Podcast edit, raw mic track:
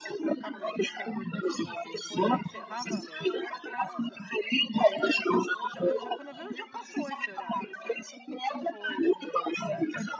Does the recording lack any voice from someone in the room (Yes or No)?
No